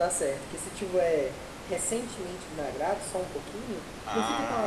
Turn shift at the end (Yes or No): Yes